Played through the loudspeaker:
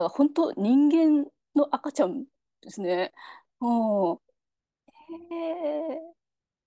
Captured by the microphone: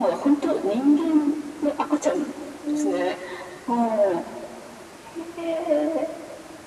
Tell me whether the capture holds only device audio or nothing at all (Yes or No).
No